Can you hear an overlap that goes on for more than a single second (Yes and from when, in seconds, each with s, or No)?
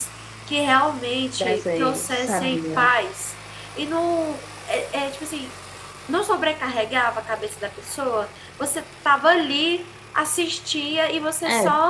Yes, from 1.4 s